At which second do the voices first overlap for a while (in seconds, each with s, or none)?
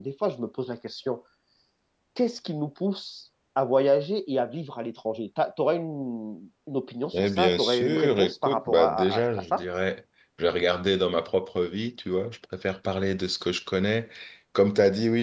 7.1 s